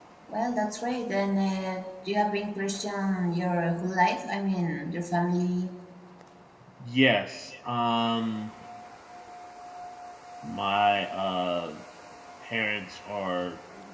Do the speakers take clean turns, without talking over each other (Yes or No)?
Yes